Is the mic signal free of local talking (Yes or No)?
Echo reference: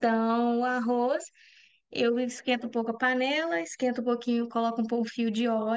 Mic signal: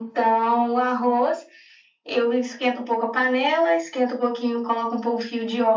Yes